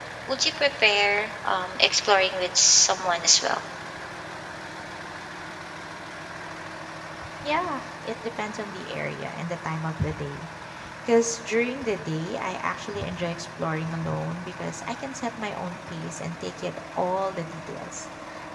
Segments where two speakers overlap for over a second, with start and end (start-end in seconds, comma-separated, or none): none